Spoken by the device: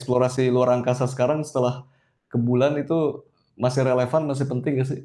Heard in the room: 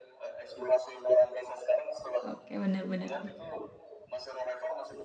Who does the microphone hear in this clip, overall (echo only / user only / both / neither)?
both